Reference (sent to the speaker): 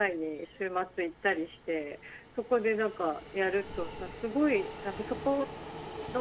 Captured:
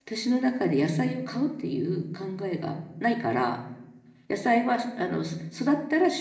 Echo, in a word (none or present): none